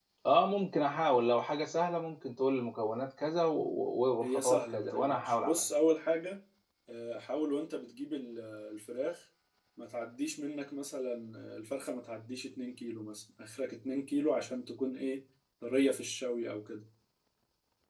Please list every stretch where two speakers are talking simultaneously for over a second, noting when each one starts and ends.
4.2-5.6

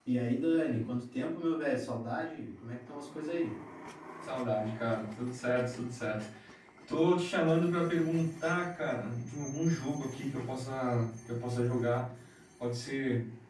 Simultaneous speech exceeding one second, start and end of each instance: none

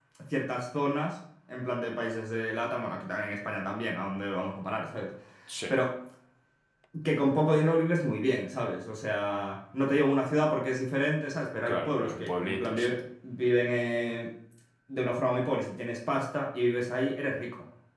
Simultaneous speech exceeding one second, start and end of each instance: 11.7-12.9

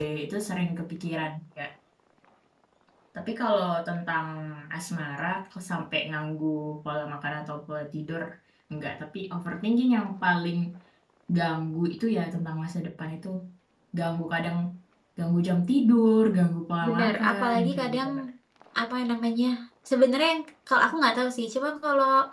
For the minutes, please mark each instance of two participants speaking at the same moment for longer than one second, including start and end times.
16.9-18.1

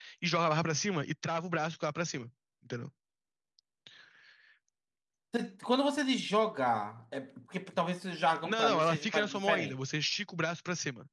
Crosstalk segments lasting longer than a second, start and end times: 8.4-9.7

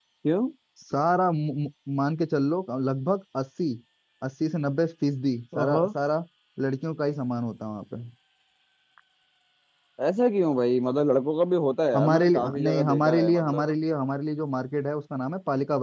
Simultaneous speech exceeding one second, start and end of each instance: 11.9-13.7

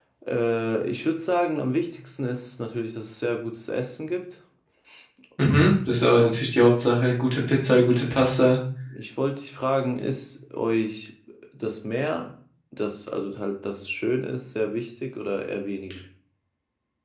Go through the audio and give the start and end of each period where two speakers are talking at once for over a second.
none

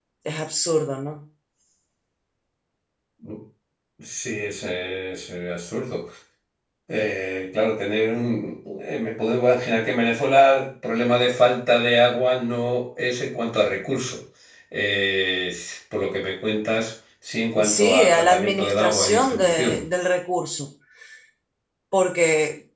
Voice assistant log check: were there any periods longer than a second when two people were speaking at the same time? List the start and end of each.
17.6-19.8

